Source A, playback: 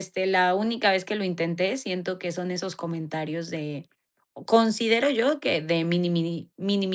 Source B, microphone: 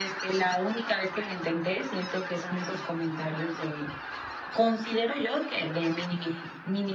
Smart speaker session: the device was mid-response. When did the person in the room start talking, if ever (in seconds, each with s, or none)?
none